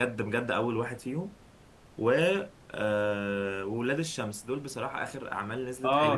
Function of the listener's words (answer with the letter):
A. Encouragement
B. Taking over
B